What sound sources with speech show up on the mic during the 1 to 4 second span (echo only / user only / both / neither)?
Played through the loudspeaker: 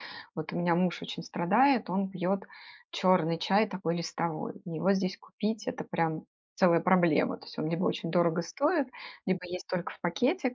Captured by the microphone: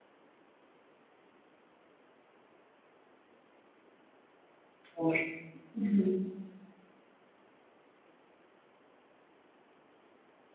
neither